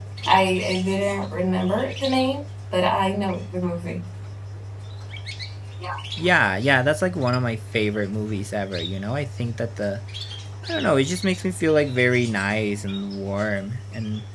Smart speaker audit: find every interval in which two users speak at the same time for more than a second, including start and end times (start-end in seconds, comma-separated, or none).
none